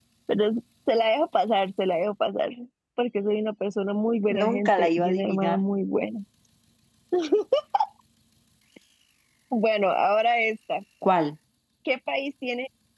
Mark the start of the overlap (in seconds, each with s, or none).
4.3 s